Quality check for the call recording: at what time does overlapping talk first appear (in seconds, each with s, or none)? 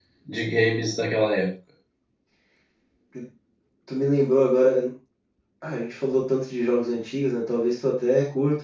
none